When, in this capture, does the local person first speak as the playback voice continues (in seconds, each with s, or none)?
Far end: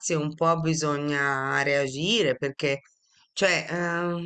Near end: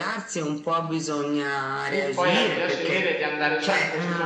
1.9 s